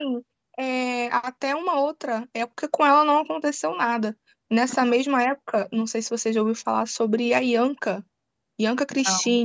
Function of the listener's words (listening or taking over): listening